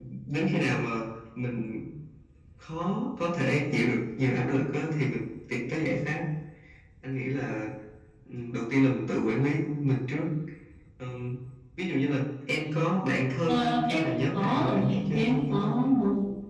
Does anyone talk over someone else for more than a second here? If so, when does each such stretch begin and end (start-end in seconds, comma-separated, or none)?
13.5-15.7